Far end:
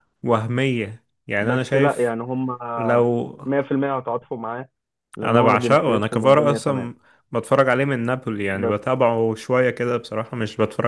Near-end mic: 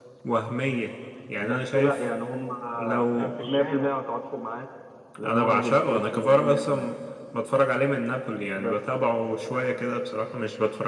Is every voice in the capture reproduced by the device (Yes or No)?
No